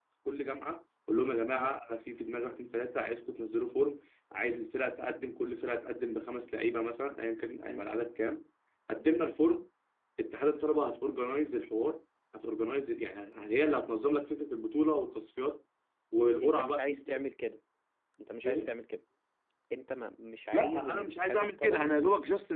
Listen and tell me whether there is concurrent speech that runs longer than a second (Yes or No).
Yes